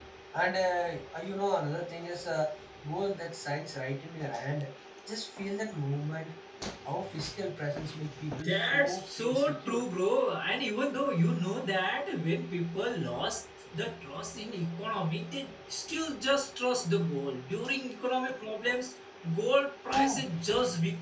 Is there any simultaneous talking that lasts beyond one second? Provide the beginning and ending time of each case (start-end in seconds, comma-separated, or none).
8.4-9.8